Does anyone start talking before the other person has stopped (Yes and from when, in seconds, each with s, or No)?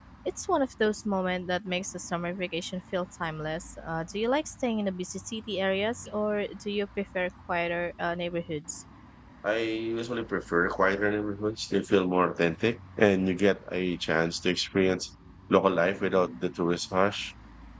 No